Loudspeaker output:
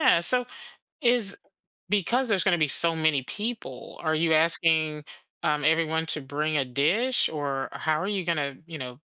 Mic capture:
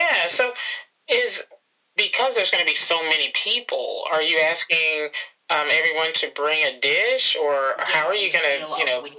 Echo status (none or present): present